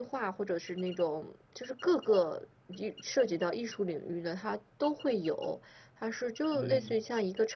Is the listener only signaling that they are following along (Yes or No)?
Yes